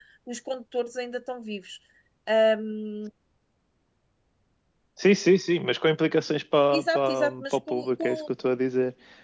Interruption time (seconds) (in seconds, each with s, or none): 6.7 s